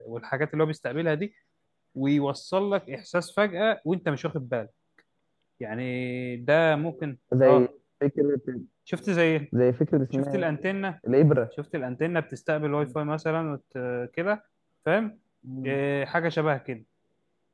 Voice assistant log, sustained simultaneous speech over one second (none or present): none